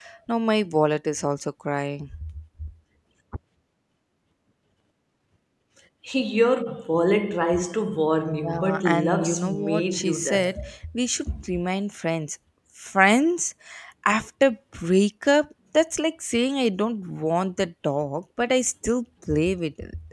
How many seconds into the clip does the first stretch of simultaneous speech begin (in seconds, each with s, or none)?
8.3 s